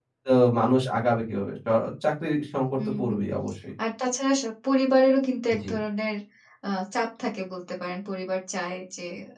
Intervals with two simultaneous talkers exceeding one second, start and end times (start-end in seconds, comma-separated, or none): none